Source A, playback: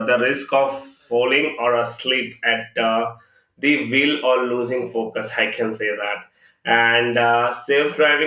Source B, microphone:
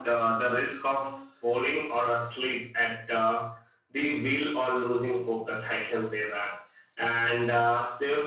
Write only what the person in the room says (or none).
none